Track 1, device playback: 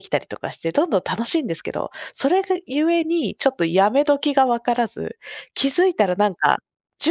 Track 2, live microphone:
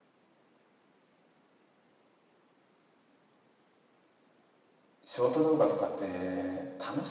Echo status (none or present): none